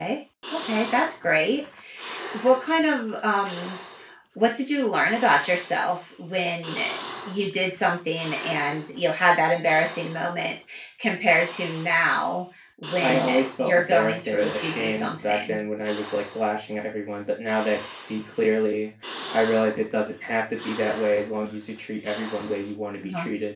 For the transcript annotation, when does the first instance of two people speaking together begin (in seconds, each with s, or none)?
13.0 s